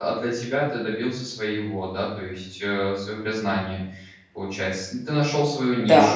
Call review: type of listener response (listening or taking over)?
taking over